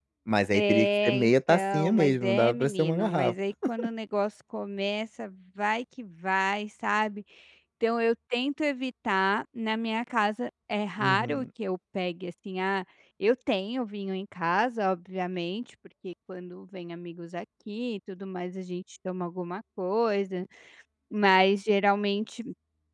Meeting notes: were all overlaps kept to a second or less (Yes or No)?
No